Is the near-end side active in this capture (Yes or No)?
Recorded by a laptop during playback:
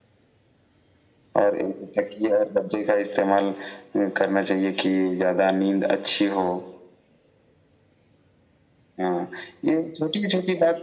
No